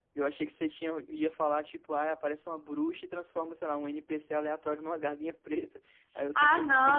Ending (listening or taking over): taking over